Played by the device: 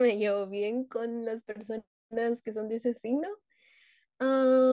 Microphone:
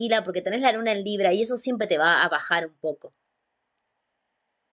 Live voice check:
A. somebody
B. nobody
A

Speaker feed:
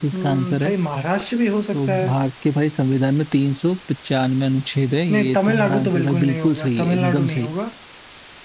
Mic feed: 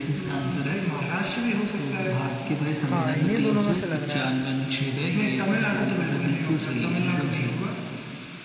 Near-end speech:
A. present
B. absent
A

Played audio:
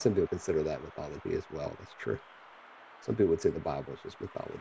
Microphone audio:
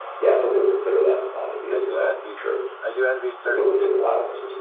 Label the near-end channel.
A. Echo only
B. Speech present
B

